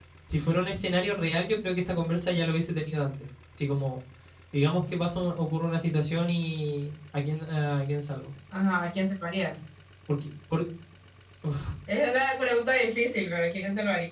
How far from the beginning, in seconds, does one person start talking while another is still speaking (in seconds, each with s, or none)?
none